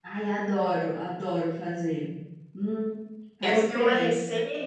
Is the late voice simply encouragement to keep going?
No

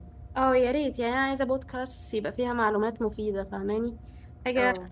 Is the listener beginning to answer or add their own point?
No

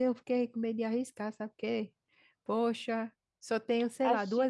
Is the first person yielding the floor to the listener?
No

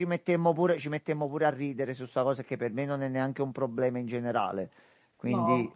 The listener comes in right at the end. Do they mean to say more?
No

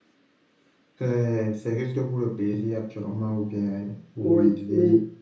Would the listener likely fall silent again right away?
No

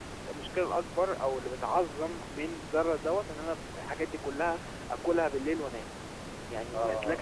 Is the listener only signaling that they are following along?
No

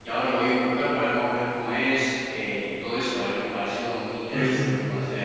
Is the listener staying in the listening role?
No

